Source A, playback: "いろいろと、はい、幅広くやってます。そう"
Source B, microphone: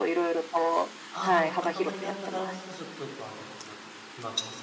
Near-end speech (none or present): present